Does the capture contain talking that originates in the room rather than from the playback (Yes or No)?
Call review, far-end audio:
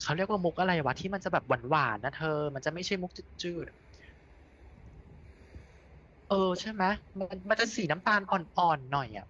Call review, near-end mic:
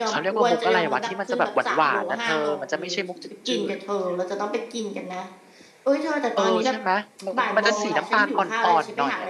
Yes